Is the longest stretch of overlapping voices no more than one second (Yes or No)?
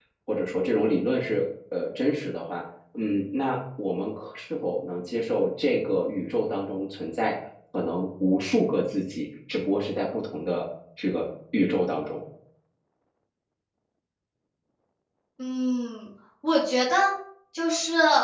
Yes